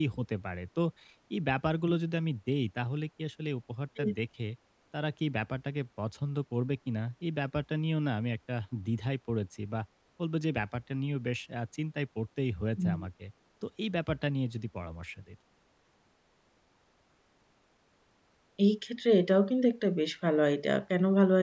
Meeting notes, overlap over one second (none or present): none